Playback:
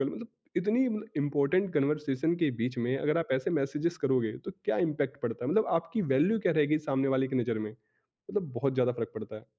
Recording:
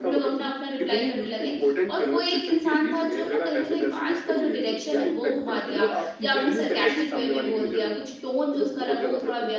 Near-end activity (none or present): present